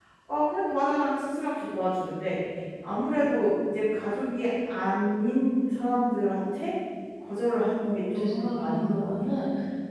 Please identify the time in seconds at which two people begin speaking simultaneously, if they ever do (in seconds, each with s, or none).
7.8 s